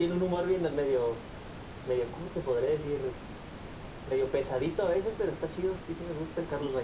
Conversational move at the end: taking over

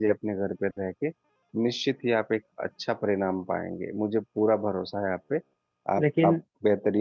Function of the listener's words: listening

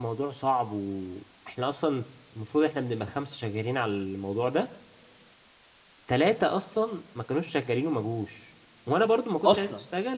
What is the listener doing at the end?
listening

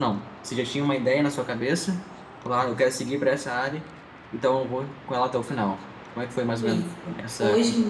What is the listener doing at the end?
taking over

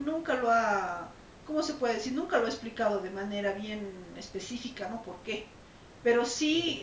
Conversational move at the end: listening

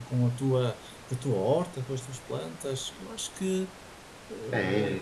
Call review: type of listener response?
taking over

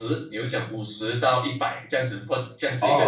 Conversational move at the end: taking over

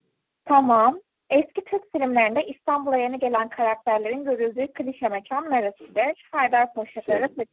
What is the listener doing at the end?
listening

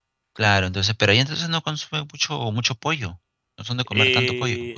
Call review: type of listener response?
taking over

